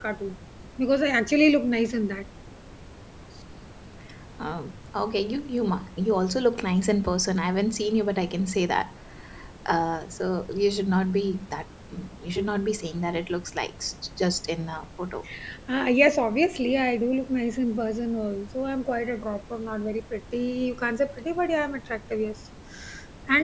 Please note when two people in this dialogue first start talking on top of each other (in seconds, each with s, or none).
none